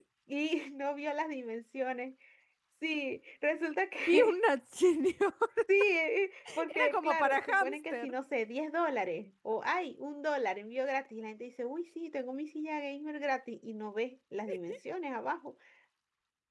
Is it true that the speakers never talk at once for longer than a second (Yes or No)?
No